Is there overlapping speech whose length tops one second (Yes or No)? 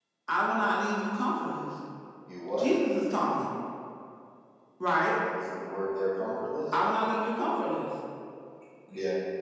No